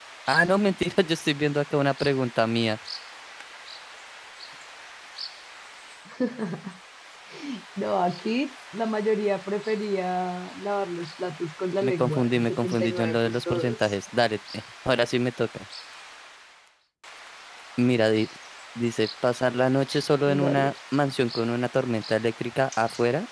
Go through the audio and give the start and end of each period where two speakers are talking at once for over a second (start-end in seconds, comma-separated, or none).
11.8-13.9